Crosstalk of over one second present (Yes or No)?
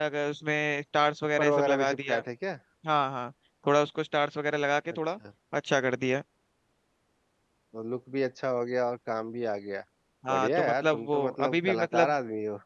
Yes